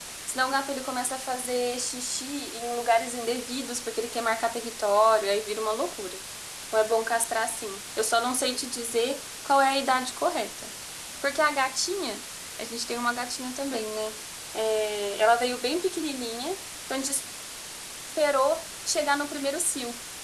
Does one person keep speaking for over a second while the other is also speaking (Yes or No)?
No